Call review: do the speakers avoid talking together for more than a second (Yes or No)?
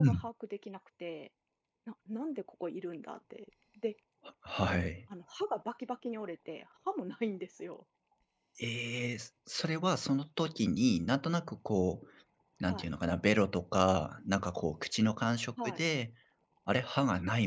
Yes